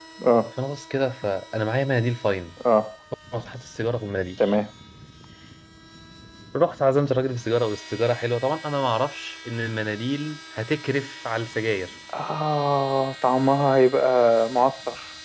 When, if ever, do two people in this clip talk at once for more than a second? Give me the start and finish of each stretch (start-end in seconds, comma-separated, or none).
none